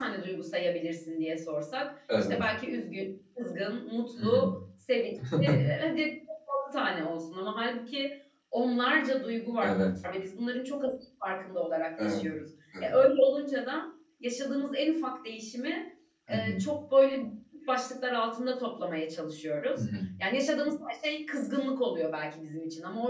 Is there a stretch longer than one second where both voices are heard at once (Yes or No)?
No